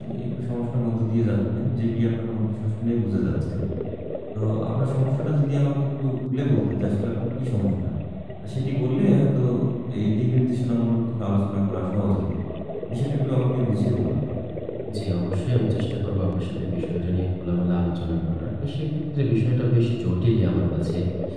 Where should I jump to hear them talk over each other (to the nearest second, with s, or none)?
none